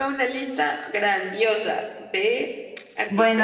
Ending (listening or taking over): taking over